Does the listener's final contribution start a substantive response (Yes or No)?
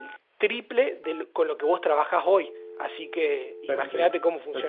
Yes